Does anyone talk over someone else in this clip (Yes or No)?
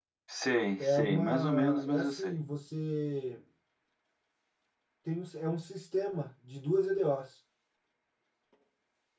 Yes